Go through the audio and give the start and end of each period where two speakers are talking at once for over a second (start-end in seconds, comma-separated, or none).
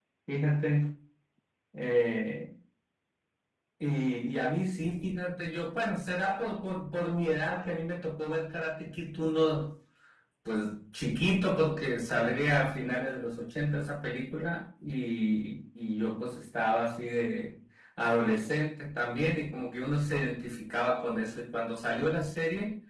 none